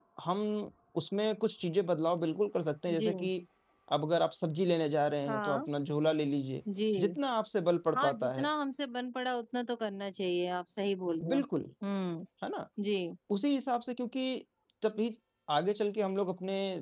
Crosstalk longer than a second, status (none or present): none